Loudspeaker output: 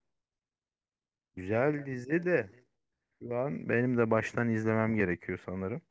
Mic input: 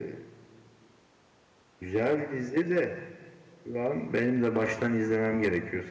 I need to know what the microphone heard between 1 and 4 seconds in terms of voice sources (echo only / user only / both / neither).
echo only